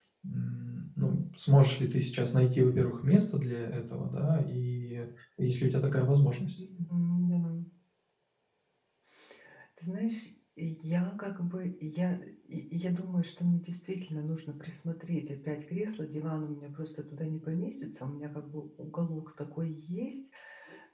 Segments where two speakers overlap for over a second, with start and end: none

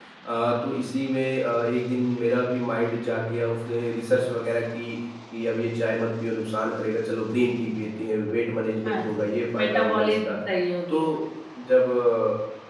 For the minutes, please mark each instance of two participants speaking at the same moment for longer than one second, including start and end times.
8.8-10.4

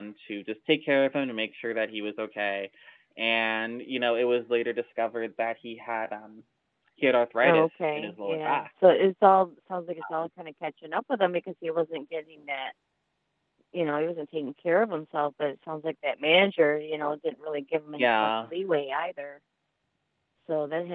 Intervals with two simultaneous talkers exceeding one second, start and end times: 7.4-8.7

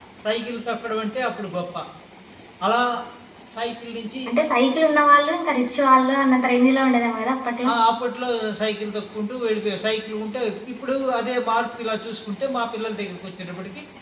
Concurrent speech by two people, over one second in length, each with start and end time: none

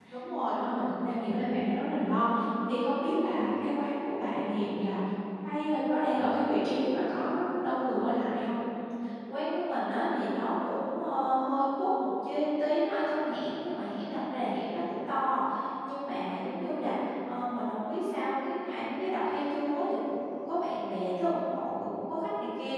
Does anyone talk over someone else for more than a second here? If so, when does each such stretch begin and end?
none

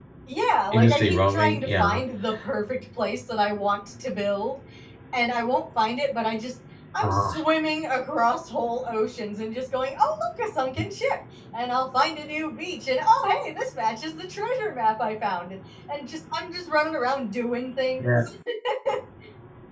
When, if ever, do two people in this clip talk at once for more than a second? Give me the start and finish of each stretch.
0.7-2.0

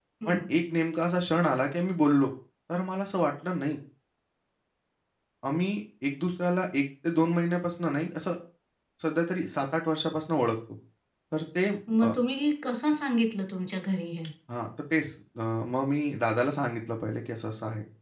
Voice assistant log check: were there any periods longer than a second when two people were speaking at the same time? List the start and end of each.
none

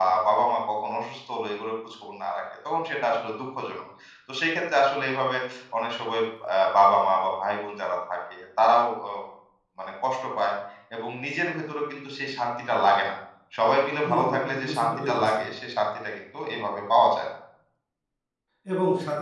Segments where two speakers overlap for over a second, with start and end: 14.1-15.4

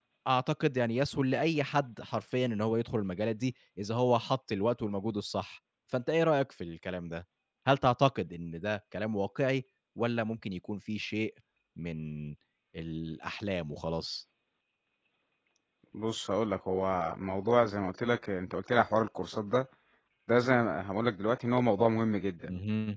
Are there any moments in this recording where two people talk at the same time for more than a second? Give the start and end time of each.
none

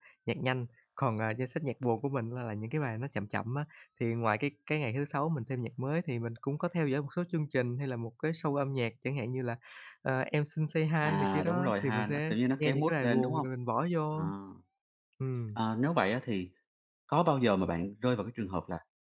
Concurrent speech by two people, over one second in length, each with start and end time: 11.0-13.4

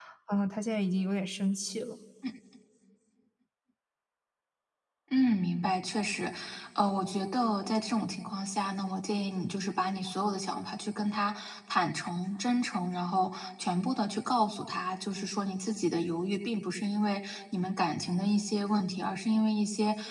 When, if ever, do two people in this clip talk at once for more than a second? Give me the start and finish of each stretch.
none

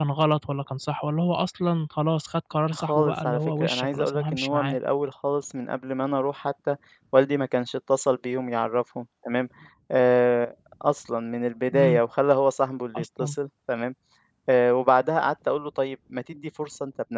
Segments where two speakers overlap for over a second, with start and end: 2.7-4.8

